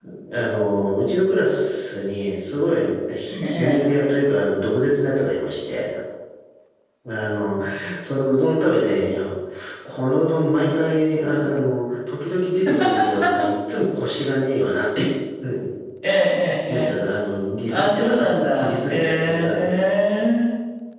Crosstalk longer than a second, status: present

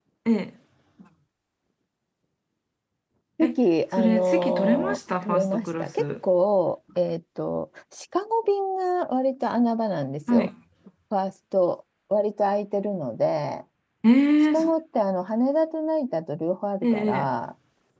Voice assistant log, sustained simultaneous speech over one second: present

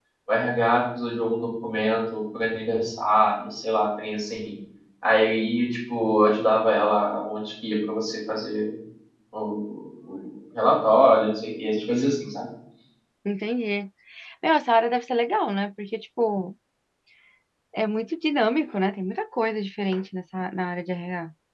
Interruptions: none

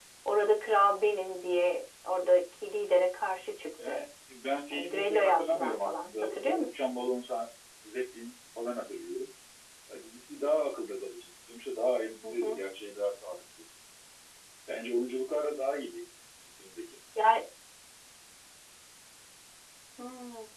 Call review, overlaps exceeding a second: present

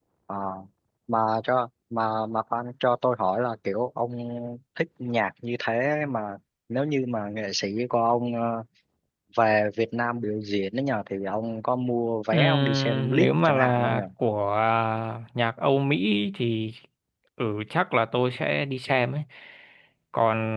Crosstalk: present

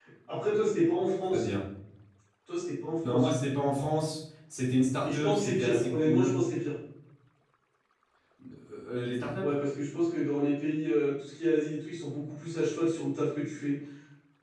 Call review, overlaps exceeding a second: present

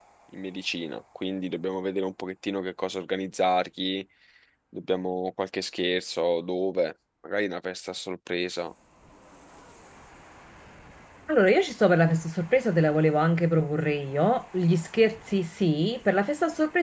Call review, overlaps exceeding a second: none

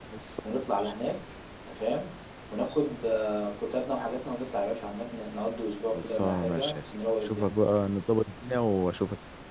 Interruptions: present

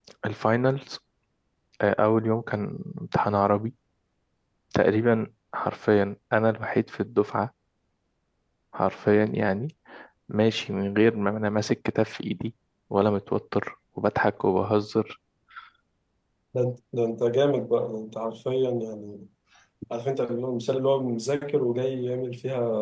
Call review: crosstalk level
none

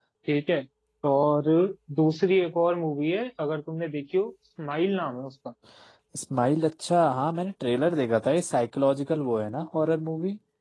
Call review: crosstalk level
none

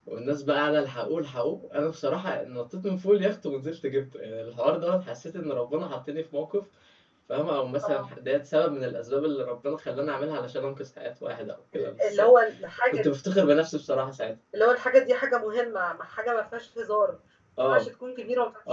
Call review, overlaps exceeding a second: none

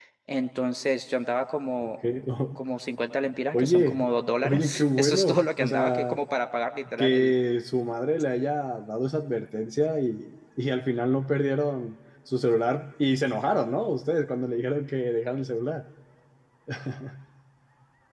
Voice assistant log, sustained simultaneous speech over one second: present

